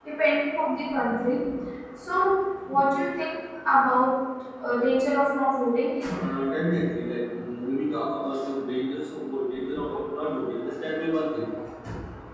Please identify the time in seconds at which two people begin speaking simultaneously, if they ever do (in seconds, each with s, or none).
none